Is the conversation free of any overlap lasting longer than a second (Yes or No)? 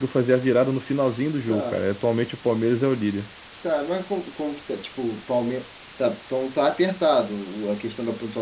Yes